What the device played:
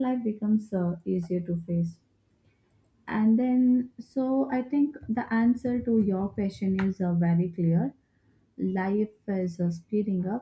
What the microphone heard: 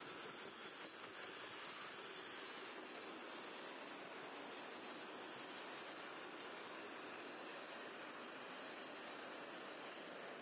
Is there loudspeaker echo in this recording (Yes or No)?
No